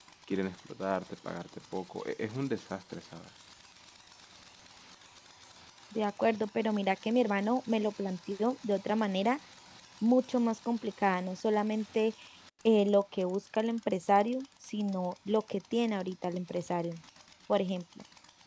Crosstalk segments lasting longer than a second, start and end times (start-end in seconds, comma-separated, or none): none